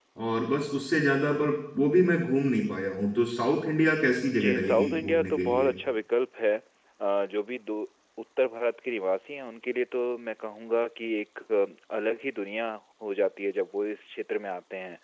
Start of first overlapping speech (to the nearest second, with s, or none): 4 s